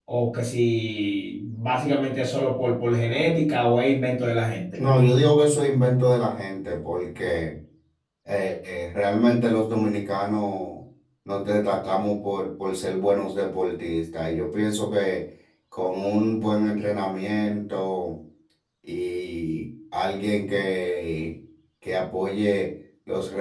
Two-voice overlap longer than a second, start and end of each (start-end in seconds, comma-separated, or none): none